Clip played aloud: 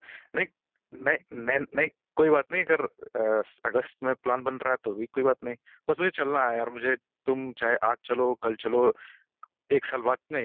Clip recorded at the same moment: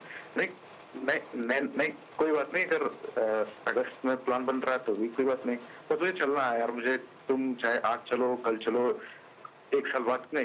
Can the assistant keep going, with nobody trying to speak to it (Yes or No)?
Yes